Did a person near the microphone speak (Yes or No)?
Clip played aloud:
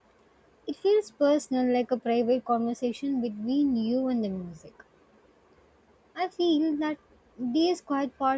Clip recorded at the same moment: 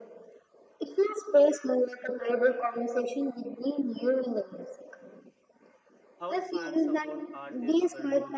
Yes